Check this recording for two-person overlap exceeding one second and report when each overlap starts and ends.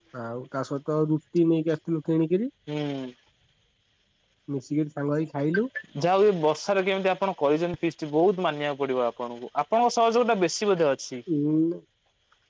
none

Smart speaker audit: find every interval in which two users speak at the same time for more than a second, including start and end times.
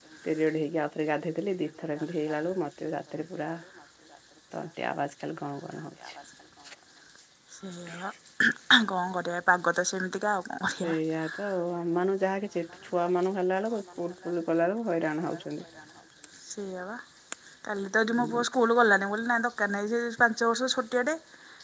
none

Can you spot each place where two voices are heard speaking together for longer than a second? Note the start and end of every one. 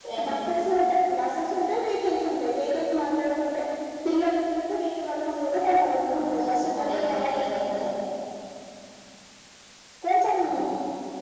6.2-7.9

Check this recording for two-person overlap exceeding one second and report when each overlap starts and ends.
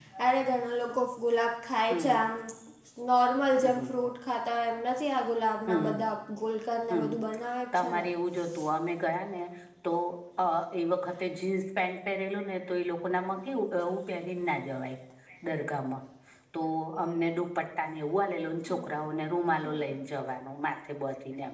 none

